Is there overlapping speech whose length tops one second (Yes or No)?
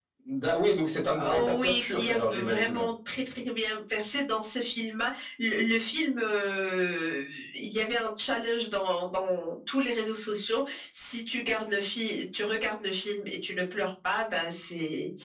Yes